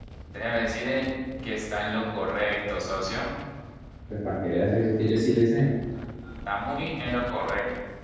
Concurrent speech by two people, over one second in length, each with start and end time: none

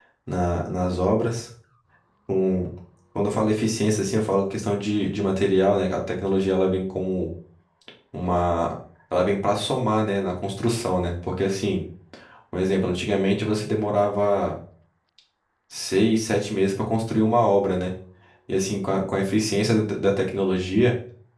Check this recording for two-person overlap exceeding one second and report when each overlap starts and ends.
none

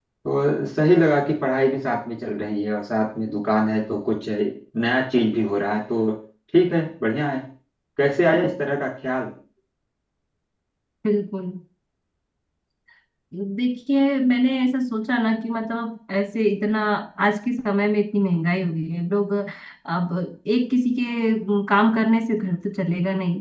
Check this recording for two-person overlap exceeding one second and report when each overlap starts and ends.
none

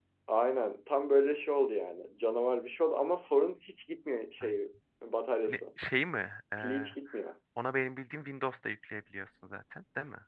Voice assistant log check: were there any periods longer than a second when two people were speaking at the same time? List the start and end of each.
none

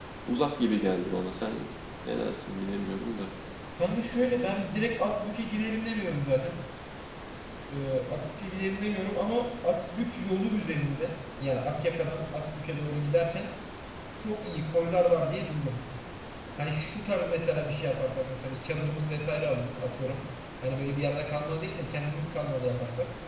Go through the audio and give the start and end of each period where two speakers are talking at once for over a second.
none

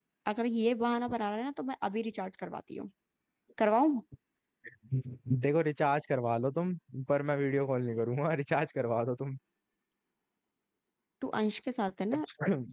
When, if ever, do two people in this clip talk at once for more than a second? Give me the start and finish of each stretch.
none

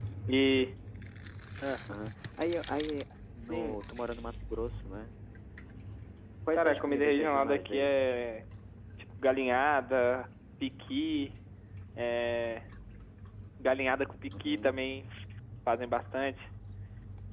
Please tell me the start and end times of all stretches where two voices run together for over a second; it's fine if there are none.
6.5-8.0

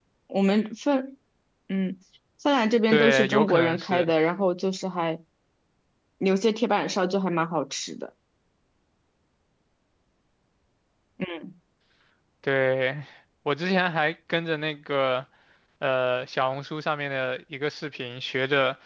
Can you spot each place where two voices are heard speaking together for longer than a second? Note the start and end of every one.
2.9-4.1

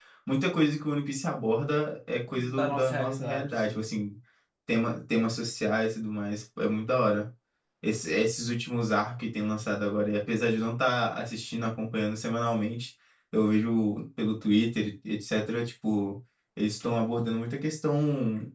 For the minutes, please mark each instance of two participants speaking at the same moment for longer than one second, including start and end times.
2.4-3.9

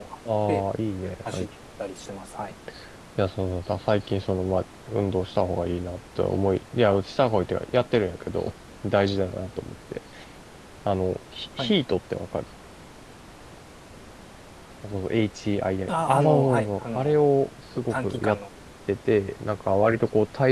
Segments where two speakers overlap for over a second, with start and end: 15.9-17.3

